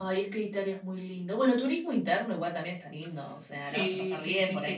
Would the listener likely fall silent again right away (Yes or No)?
No